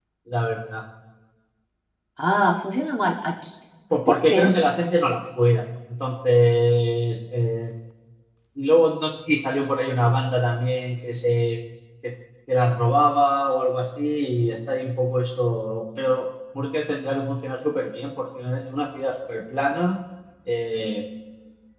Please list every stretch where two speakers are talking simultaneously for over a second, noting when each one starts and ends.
none

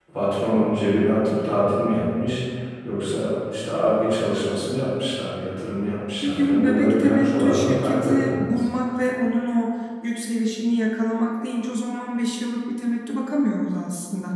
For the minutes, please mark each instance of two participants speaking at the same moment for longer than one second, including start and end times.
6.2-8.5

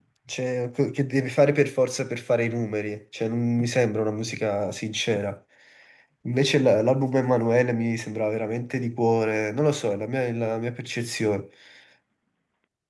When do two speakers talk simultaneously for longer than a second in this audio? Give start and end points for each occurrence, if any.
none

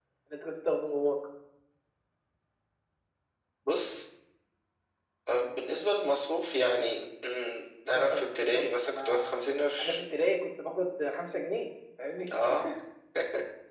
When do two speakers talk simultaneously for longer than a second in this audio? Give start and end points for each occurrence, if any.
7.9-9.4

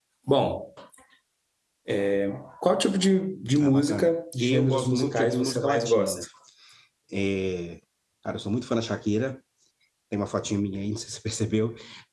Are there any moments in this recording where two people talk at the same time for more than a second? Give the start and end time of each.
3.6-6.2

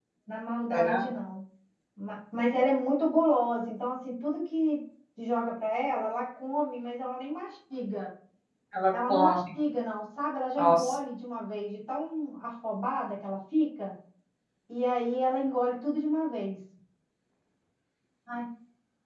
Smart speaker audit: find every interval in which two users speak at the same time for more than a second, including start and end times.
none

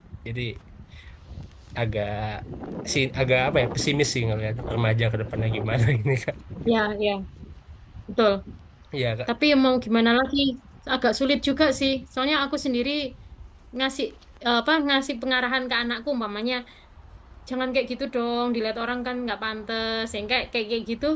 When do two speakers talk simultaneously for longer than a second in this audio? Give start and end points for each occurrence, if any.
none

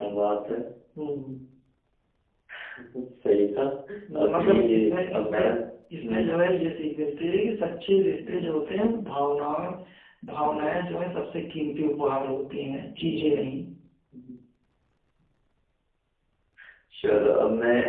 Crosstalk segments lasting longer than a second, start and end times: 4.2-5.4

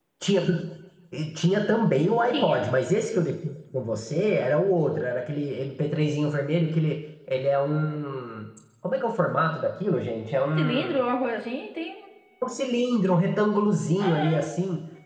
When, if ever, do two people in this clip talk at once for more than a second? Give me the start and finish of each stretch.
none

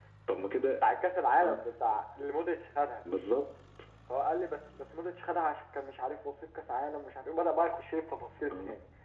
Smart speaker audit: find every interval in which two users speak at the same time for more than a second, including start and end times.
none

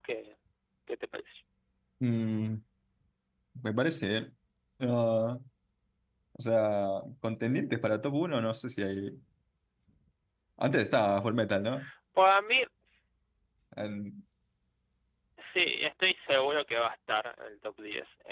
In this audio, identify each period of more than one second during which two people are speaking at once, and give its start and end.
none

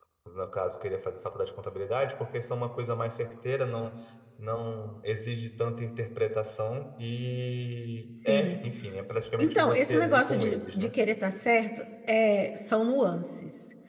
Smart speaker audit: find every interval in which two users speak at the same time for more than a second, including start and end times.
9.4-10.9

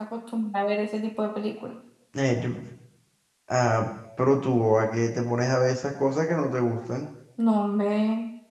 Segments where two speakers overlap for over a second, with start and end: none

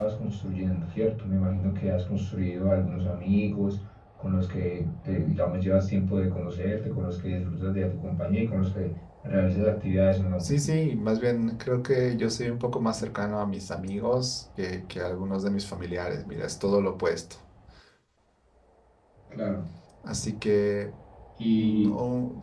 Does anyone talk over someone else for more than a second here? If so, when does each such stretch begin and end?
none

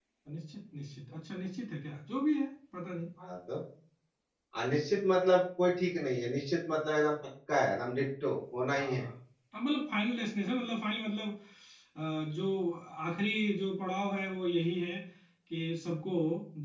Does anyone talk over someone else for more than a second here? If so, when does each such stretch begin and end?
none

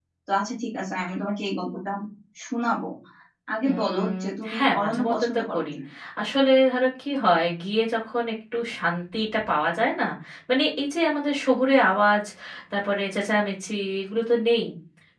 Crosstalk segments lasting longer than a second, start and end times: 3.7-5.6

